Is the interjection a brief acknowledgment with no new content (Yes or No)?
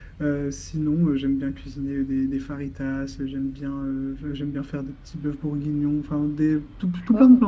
Yes